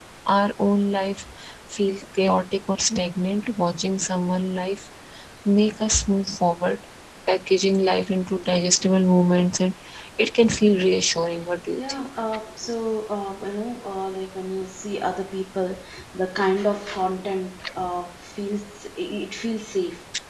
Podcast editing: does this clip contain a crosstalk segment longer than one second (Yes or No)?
No